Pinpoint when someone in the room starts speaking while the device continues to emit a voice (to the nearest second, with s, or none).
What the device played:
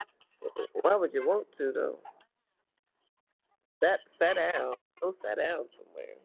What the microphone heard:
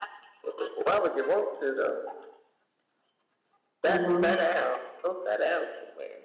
4 s